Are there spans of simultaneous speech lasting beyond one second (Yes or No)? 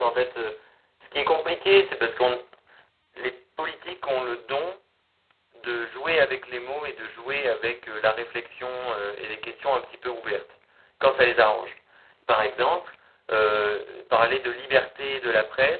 No